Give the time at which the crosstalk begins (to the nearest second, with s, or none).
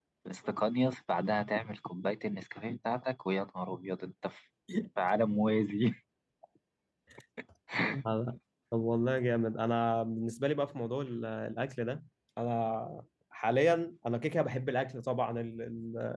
none